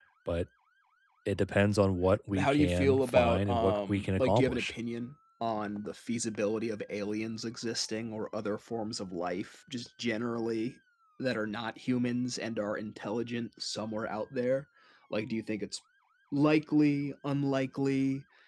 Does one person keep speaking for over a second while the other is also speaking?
Yes, from 2.3 s

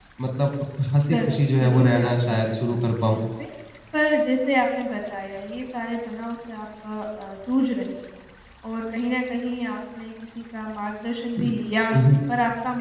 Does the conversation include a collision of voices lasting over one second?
Yes, from 1.1 s

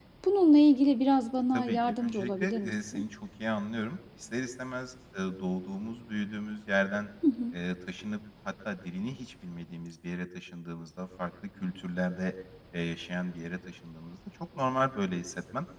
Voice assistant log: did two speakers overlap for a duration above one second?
Yes, from 1.5 s

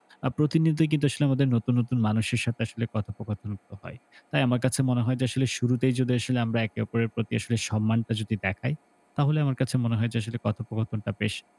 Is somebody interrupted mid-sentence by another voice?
No

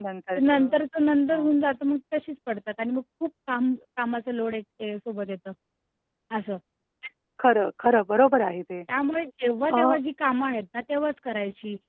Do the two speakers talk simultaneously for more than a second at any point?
No

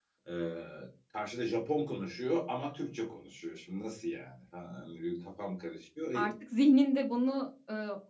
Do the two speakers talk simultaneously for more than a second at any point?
No

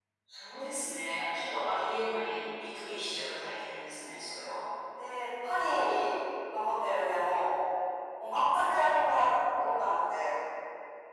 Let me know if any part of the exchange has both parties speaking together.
No

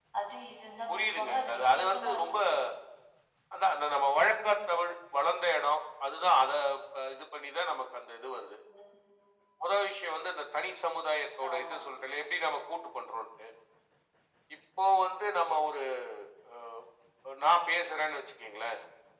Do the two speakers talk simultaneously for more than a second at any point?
Yes, from 0.9 s

